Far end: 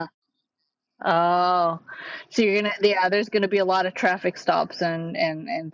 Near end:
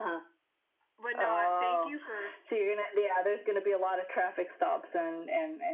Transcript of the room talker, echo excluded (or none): But no, I, thank you for s-